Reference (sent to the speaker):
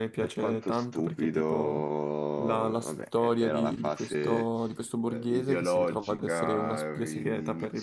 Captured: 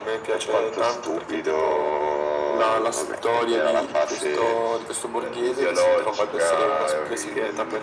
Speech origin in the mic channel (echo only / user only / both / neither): echo only